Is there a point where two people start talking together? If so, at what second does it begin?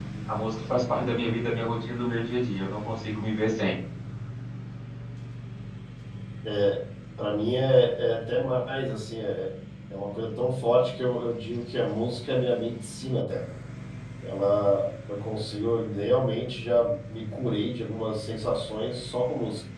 none

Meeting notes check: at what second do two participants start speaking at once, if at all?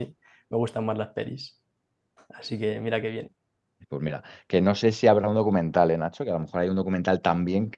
none

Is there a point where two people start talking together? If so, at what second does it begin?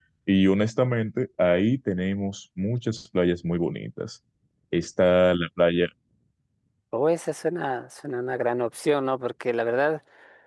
none

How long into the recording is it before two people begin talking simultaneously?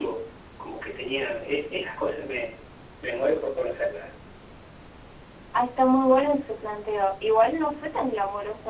none

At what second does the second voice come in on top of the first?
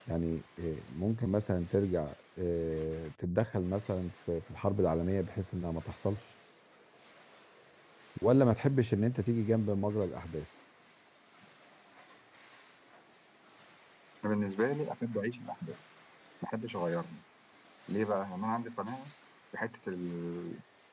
none

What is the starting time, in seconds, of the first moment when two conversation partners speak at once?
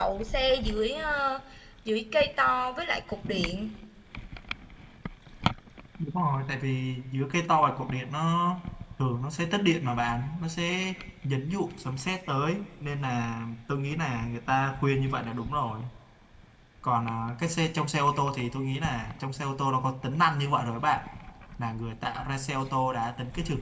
none

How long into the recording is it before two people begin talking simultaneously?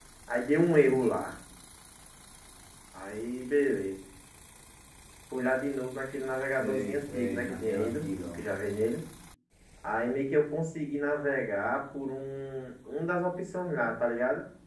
6.6 s

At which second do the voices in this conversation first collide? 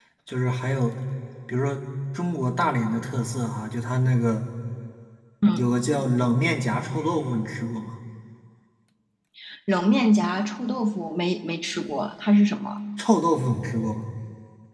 none

